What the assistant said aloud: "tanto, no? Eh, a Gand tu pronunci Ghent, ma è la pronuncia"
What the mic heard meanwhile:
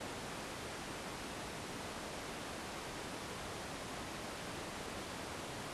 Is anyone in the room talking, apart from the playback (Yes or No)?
No